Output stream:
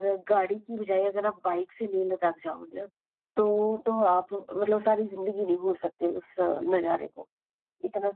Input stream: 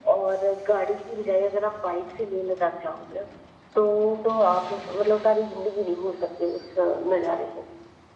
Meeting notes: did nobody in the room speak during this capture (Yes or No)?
Yes